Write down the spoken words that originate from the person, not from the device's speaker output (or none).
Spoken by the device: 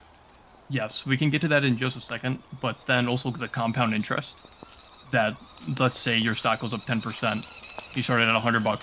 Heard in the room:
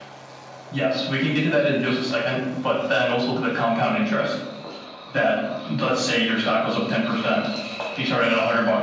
none